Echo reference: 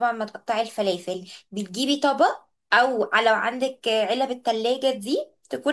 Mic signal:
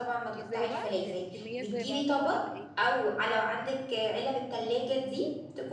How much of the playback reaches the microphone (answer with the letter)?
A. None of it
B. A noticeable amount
B